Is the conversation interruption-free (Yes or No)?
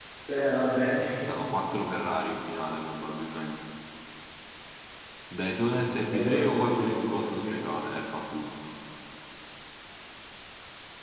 No